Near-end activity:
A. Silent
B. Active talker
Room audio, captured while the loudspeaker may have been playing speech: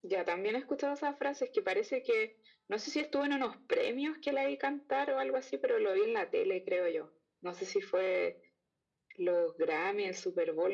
A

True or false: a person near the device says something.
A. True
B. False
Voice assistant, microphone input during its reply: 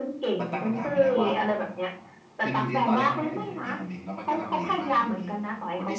A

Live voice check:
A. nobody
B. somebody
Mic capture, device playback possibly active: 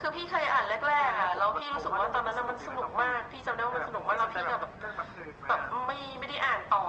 A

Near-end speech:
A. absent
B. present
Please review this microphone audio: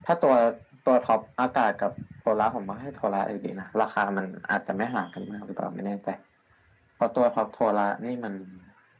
A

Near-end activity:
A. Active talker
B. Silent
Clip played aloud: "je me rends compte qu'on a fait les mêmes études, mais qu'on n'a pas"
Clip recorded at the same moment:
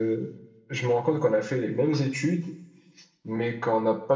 B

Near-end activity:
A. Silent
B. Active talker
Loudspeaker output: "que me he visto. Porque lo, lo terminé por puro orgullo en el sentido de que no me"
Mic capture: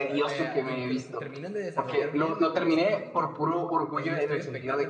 B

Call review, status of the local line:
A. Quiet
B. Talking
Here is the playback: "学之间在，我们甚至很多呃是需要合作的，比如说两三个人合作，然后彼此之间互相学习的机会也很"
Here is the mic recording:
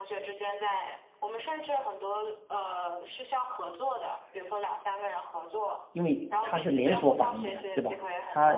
B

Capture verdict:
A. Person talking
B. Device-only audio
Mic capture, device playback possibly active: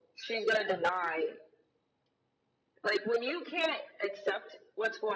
B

